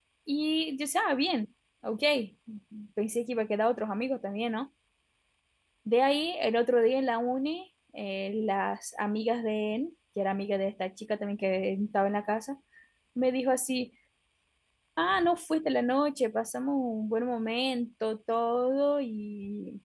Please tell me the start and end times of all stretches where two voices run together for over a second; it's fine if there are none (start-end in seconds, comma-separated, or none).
none